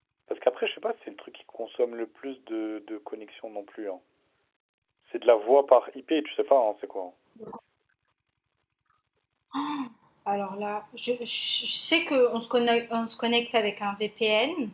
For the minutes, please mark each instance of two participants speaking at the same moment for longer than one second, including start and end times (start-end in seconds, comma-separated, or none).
none